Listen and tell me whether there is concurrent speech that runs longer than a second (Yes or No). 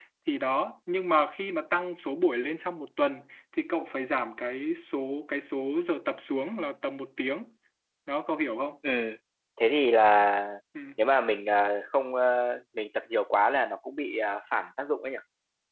No